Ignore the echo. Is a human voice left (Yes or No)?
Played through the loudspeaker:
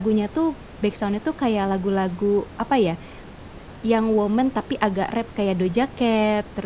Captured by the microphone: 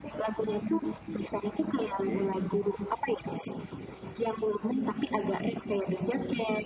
Yes